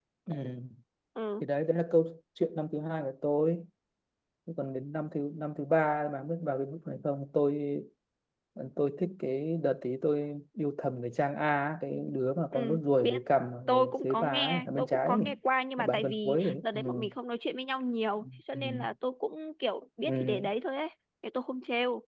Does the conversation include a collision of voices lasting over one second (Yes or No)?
Yes